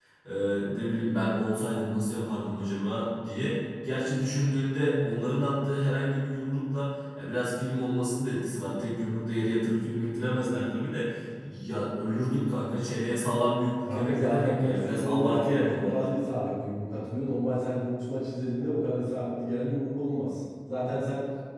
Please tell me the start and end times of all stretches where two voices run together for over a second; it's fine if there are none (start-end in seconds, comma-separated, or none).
13.9-16.1